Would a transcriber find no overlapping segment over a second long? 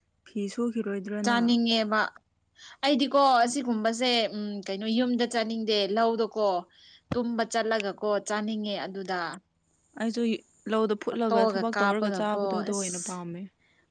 No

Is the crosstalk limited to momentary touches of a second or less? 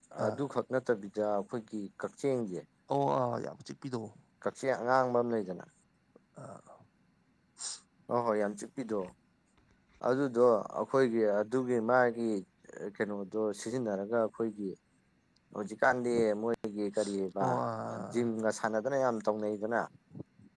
Yes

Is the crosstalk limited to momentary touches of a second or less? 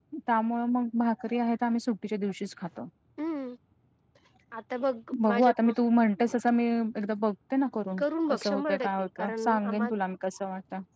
No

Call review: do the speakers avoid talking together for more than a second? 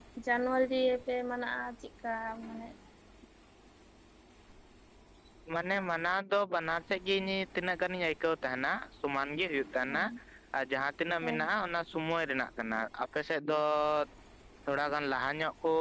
Yes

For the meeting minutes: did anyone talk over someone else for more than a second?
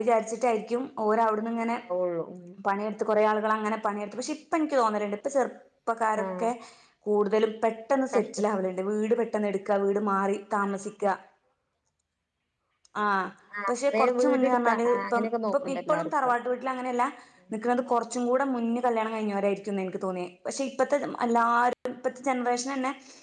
Yes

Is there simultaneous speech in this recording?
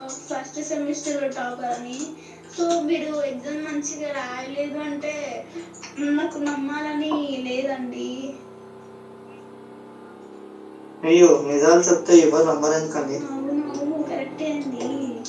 No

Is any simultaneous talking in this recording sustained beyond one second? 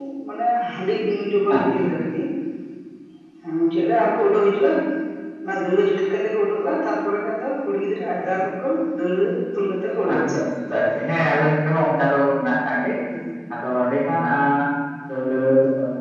No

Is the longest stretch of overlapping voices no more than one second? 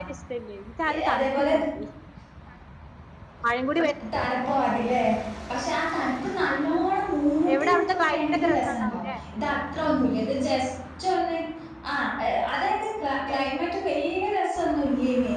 No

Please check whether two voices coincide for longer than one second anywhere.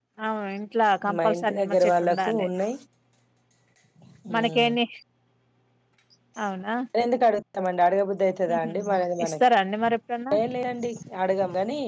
Yes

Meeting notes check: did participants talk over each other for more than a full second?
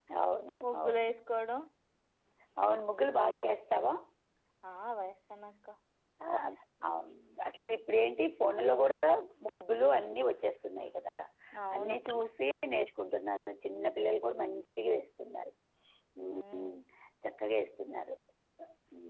No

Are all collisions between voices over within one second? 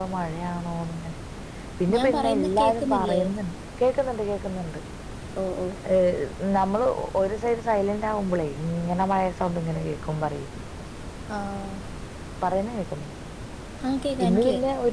No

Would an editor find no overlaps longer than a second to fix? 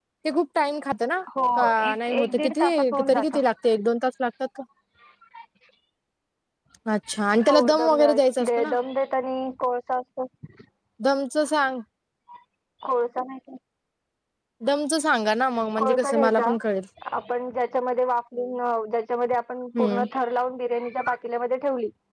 No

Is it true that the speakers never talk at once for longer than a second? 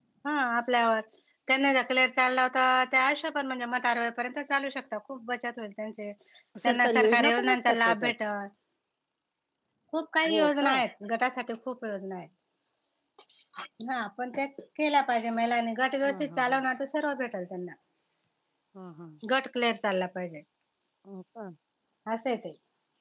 No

